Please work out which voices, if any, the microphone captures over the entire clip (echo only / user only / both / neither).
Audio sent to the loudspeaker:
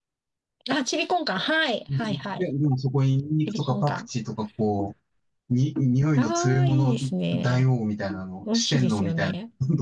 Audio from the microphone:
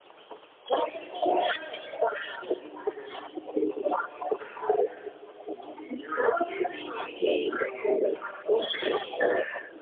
echo only